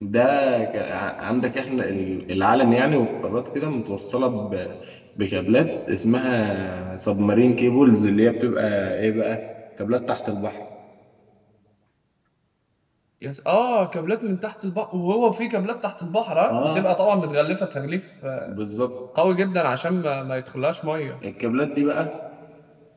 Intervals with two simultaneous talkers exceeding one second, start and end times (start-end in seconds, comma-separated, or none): none